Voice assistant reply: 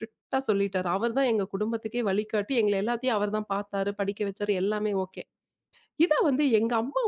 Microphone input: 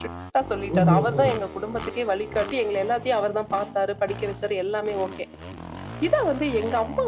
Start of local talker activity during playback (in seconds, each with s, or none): 0.8 s